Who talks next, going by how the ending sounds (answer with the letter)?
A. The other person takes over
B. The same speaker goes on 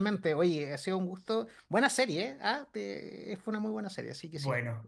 A